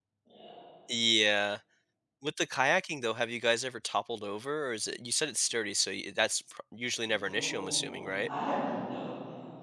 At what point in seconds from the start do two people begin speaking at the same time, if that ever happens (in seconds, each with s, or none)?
7.1 s